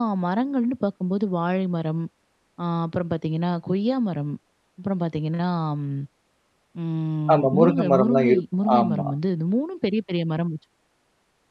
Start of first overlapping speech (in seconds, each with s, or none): 7.3 s